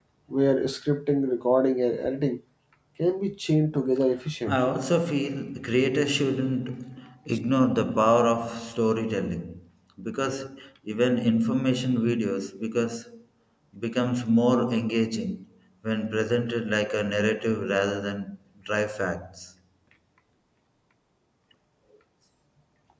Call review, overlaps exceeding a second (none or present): none